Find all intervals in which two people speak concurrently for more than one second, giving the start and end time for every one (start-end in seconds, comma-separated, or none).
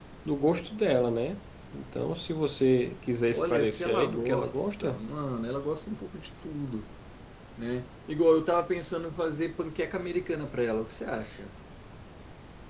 3.3-5.0